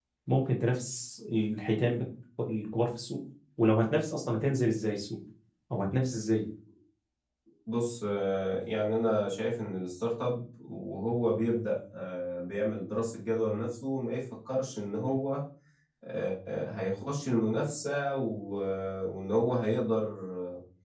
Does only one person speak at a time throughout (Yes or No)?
Yes